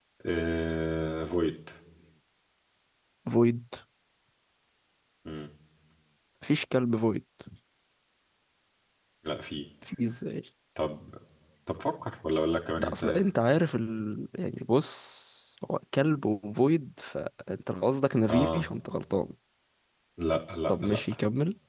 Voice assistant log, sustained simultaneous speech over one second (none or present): none